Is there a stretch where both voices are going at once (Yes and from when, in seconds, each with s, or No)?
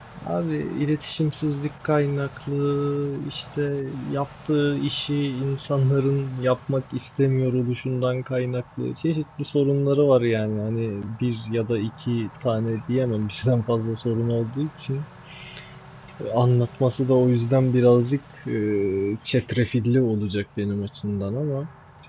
No